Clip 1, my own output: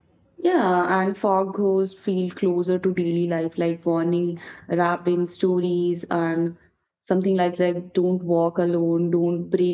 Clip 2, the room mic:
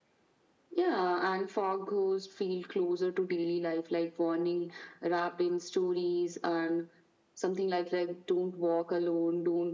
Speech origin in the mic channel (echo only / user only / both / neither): echo only